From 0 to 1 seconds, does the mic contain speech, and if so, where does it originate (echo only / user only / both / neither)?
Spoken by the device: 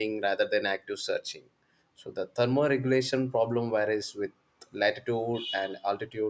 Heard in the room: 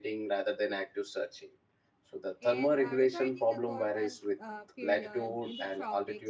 echo only